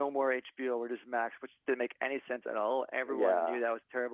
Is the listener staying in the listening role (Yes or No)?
Yes